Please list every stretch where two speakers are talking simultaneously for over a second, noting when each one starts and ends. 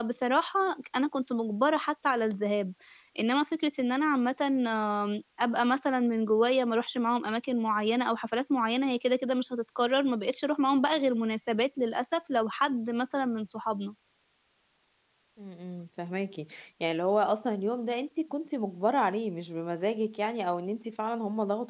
none

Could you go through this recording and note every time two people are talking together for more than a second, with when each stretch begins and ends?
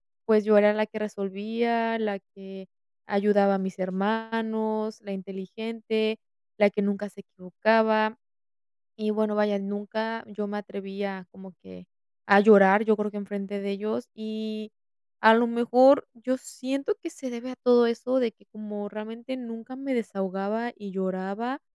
none

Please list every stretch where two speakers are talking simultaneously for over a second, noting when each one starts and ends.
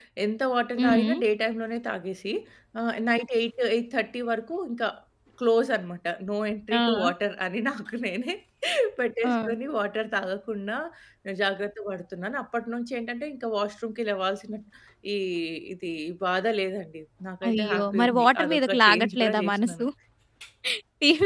17.5-19.9

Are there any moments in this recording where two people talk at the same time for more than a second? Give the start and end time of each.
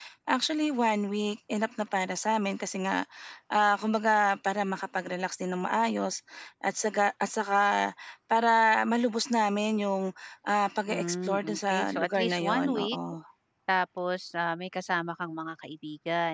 10.9-13.0

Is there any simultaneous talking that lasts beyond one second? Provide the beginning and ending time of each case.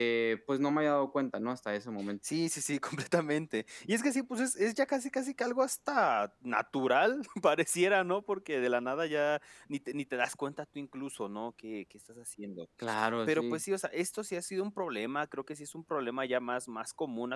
none

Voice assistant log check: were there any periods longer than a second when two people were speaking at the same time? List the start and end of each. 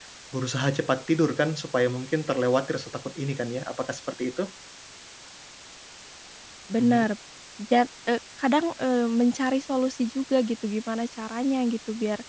none

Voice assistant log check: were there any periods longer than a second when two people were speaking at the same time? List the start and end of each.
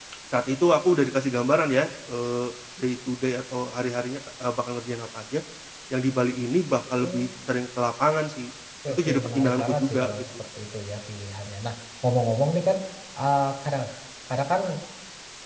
8.9-10.2

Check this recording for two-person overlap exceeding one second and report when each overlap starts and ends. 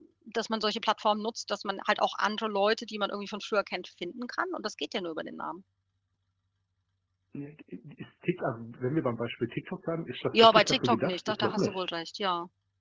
10.3-11.8

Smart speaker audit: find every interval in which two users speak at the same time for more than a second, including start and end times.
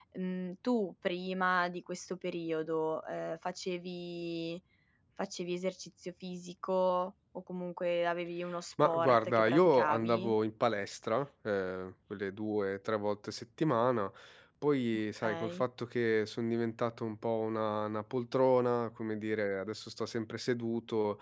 8.8-10.3

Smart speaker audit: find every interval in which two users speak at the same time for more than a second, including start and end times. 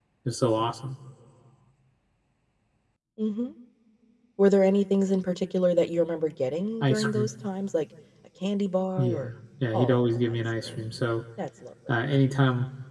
9.7-11.0

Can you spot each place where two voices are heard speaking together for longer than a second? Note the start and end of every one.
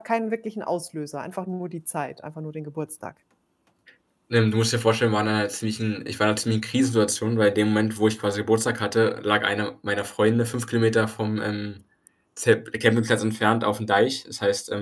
none

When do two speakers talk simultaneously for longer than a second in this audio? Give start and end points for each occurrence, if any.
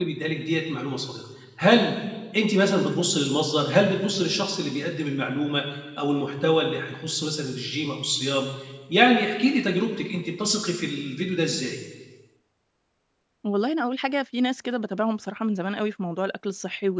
none

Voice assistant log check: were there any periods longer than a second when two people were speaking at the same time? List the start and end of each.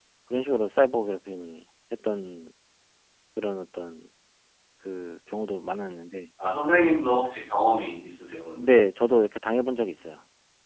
none

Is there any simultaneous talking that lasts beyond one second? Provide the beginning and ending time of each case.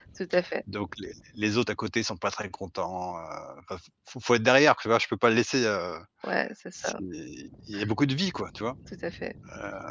none

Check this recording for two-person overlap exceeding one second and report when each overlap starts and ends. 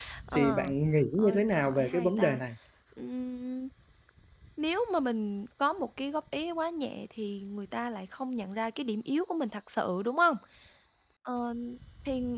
1.1-2.4

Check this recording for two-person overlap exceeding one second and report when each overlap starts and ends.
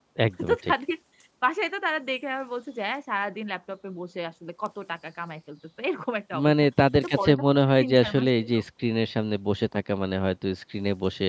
7.0-8.5

